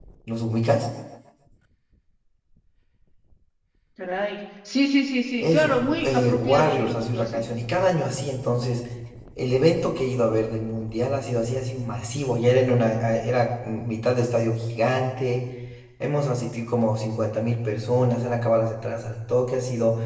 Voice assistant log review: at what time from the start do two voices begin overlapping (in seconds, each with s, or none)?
5.4 s